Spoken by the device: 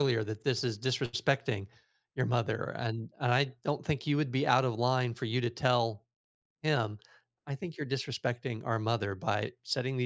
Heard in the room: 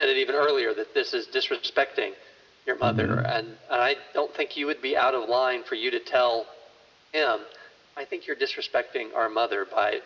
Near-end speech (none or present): present